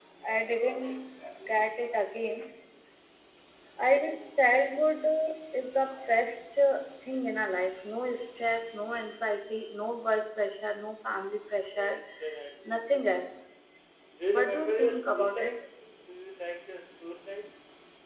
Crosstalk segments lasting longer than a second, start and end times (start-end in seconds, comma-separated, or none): 14.3-15.5